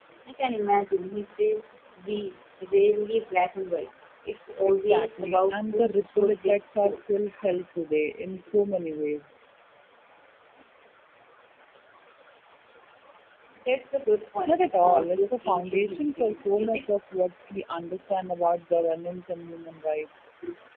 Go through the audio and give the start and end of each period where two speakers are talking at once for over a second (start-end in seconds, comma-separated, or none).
4.7-7.0, 14.5-16.8